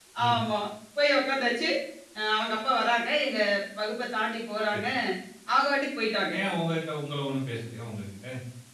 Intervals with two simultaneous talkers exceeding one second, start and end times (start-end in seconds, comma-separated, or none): none